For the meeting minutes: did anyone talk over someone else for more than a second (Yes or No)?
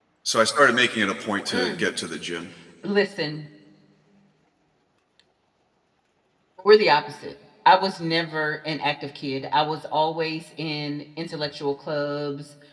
No